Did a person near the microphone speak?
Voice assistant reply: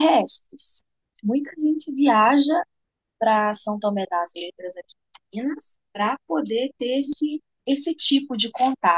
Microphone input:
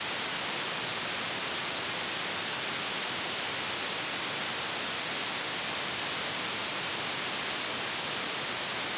No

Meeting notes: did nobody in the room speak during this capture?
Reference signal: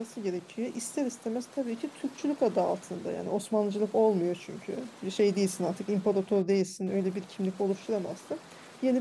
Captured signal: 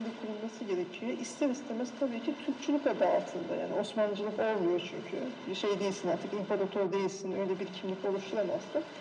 Yes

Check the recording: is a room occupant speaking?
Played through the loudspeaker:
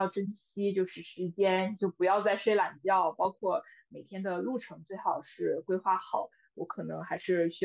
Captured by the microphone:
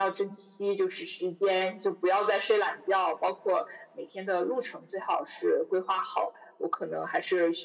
No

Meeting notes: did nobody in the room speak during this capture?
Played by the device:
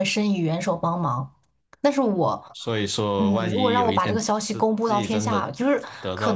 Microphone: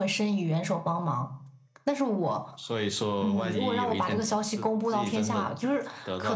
Yes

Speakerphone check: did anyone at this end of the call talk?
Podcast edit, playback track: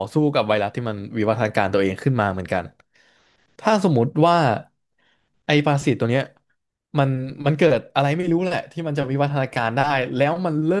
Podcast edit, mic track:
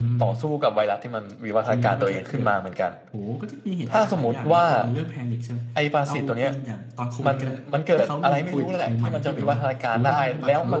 Yes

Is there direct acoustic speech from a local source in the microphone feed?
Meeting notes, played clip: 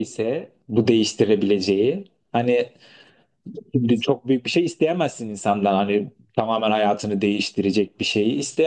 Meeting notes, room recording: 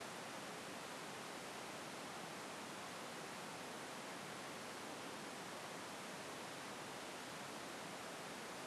No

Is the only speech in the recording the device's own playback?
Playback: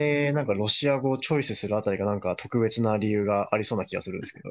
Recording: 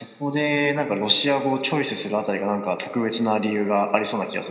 Yes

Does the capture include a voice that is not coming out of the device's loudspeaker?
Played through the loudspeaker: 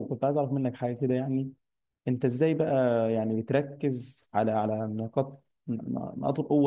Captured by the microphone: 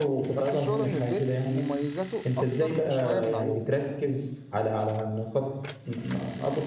Yes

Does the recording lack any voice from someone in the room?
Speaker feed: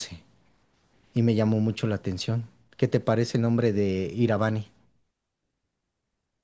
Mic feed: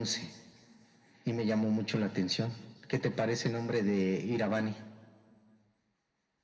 Yes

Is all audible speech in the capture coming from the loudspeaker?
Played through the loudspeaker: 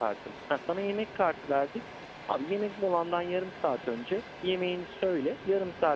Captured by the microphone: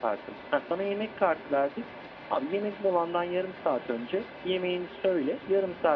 Yes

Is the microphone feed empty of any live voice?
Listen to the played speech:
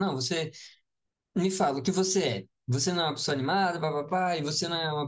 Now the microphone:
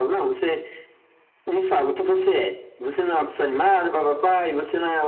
Yes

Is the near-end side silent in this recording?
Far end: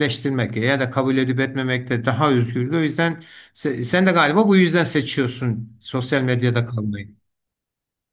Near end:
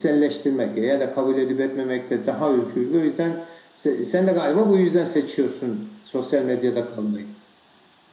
Yes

